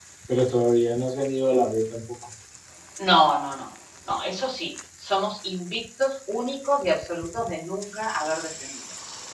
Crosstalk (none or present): none